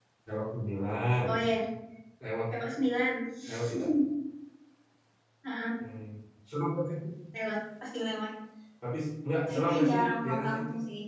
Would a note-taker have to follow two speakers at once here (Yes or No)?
Yes